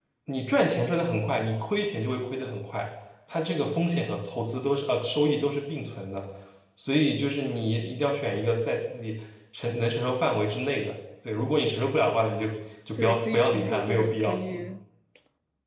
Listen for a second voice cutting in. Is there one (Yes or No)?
Yes